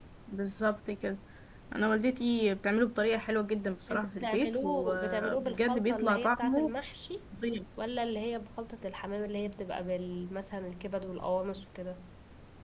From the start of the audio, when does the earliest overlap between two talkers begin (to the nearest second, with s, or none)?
4 s